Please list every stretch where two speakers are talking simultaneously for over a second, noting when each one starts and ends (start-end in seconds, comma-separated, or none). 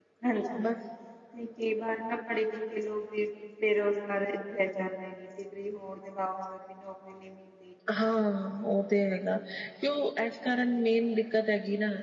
none